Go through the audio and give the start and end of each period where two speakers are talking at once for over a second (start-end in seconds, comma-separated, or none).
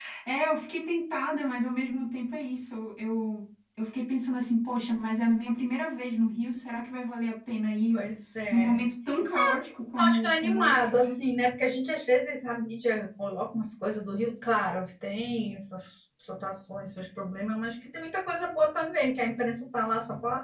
10.0-11.2